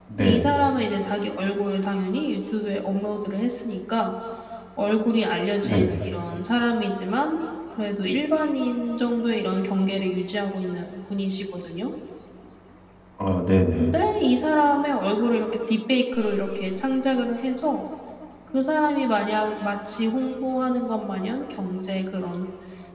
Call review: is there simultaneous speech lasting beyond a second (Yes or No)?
No